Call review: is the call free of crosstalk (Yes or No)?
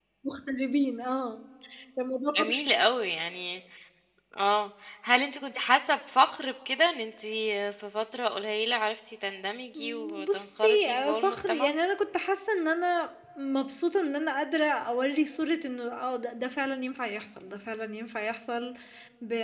No